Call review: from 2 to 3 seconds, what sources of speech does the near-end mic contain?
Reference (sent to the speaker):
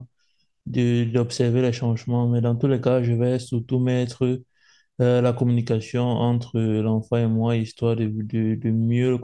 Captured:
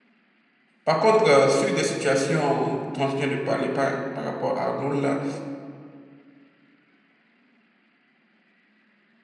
user only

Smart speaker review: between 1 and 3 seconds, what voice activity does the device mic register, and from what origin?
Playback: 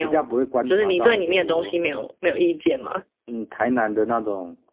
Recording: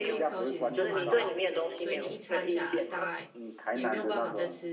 both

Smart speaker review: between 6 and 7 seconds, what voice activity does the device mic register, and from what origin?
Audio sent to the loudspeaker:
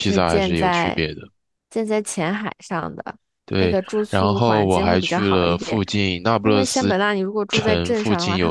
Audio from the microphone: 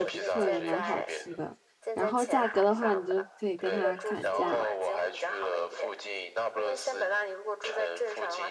echo only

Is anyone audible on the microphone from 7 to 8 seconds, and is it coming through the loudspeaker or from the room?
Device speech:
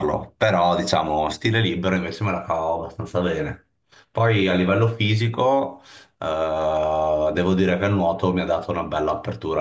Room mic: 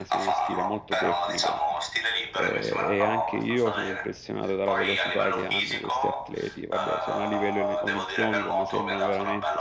both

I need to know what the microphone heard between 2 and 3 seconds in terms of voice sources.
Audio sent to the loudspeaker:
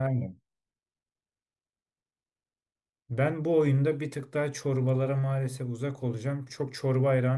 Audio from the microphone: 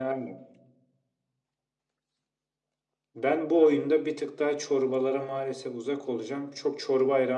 neither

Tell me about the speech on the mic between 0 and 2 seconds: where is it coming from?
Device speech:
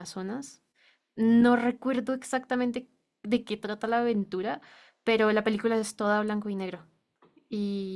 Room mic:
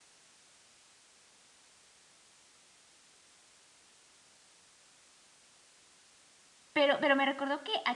neither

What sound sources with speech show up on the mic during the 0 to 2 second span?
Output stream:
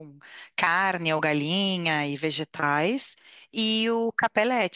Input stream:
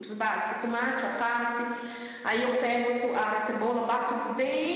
user only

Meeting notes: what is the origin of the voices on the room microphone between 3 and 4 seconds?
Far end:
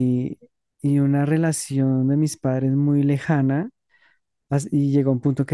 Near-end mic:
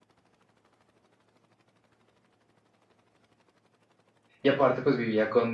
neither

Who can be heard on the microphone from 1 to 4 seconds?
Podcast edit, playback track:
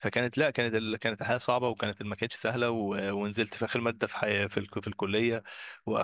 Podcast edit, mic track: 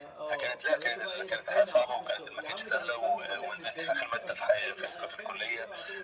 both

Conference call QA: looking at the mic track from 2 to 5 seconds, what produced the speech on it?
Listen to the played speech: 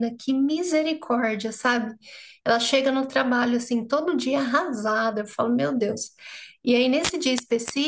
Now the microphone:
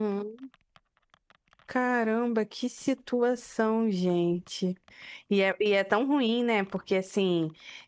user only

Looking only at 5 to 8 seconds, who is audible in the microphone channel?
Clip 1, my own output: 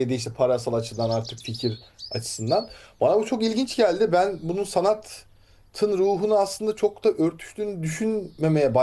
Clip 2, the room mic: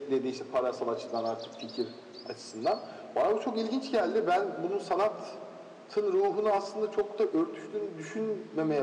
echo only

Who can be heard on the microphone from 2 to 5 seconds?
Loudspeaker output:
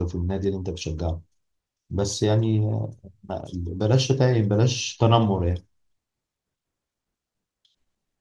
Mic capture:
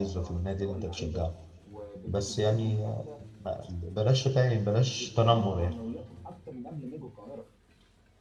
both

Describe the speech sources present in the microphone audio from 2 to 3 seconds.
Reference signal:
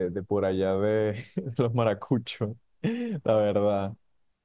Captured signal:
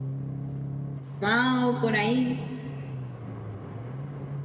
user only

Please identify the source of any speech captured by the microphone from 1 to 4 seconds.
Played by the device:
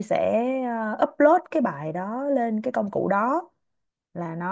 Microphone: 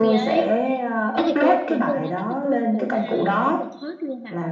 both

